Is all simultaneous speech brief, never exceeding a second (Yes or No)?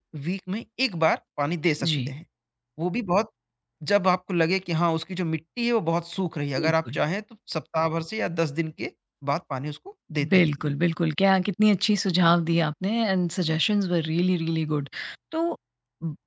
Yes